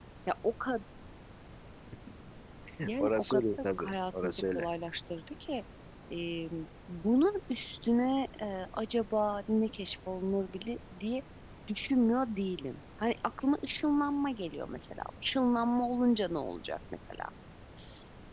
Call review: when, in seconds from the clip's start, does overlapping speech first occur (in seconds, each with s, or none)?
3.0 s